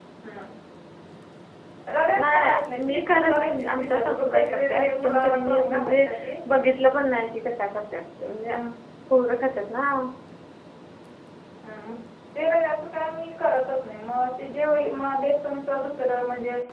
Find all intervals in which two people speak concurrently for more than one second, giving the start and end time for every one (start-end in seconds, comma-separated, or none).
2.2-6.0